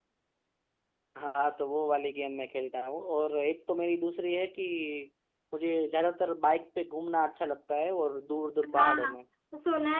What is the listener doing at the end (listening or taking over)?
taking over